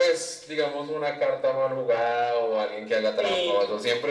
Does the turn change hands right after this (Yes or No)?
No